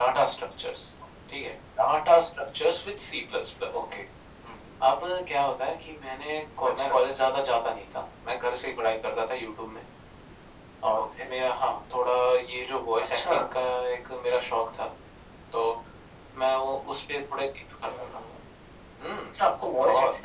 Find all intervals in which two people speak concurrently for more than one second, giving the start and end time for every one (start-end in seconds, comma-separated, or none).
none